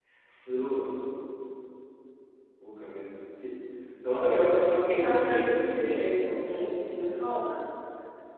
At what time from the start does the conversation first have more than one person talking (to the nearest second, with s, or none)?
4 s